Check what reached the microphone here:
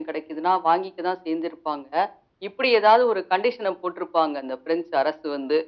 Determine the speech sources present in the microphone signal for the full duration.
echo only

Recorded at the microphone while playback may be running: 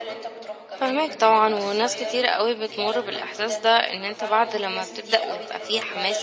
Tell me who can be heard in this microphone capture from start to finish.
both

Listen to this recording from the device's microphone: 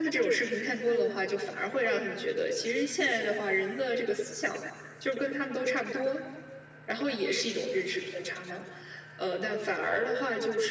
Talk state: echo only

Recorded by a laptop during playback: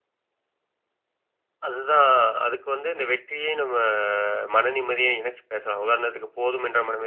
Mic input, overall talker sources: echo only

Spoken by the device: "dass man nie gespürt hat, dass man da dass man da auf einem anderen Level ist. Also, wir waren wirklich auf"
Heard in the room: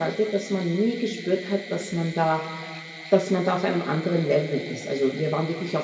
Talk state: echo only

